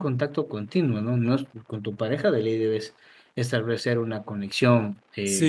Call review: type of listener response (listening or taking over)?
taking over